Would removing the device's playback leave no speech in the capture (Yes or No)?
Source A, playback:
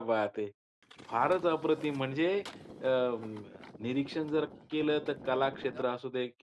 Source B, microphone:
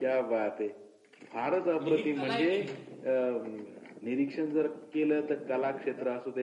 No